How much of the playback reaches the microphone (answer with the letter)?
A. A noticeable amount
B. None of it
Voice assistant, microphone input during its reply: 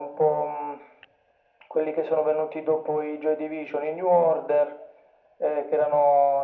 A